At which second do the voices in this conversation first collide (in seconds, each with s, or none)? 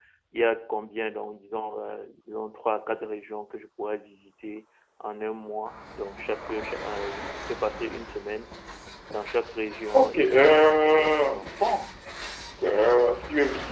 9.9 s